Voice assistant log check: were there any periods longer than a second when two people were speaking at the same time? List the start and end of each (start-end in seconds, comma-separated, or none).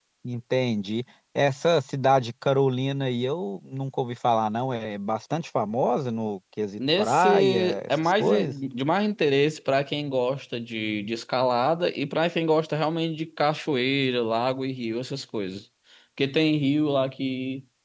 6.8-8.5